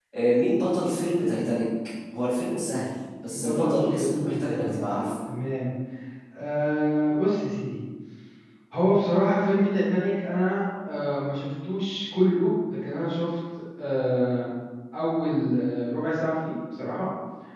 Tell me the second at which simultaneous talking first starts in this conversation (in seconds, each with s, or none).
3.3 s